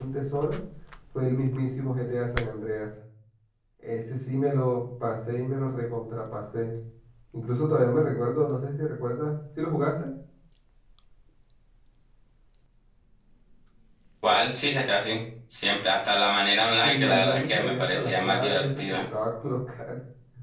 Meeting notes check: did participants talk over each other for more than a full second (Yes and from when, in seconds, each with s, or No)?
Yes, from 16.8 s